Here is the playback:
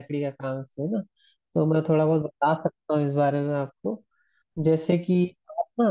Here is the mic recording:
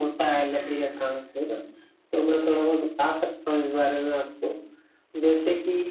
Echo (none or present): present